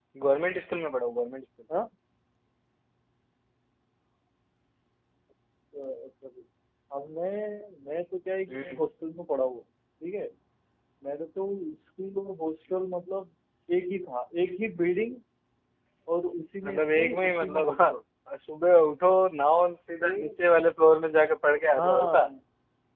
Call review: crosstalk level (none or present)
present